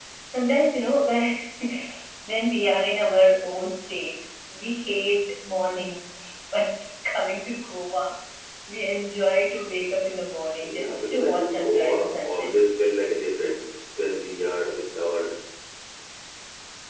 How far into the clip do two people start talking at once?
11 s

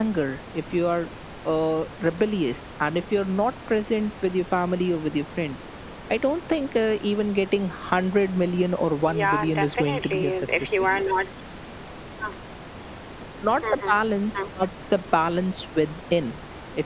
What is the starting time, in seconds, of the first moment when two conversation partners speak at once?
9 s

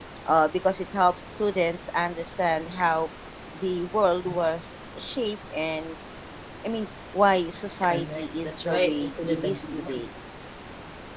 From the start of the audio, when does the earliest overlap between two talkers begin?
8 s

